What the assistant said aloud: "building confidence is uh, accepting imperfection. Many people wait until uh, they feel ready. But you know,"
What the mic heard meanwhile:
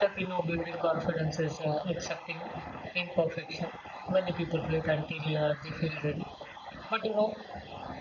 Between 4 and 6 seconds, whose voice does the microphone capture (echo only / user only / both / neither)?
echo only